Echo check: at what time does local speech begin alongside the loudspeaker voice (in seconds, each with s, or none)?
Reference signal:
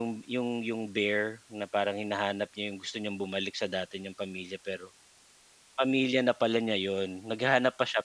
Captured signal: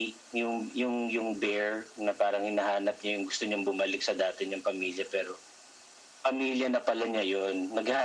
none